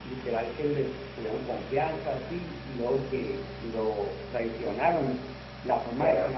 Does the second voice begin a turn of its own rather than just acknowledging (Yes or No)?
No